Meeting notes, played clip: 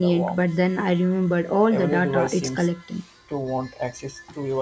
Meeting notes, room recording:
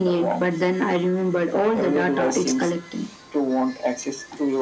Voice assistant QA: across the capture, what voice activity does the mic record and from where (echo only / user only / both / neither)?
echo only